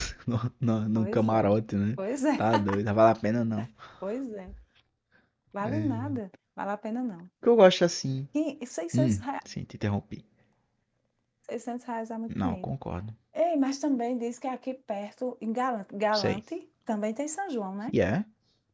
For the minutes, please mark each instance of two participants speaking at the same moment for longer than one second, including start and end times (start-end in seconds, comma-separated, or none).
none